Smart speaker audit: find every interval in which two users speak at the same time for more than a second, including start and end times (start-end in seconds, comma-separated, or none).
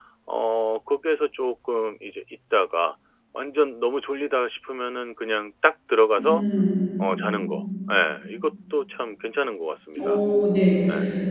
none